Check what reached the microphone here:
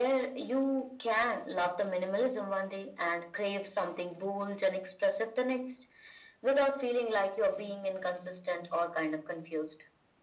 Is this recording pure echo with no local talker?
Yes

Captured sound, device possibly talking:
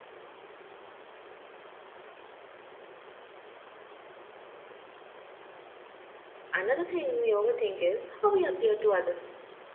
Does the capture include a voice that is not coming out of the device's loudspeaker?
Yes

